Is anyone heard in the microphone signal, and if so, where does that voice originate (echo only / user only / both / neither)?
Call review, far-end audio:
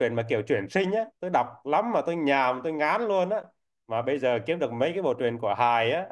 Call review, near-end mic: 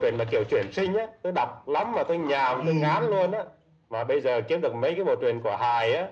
both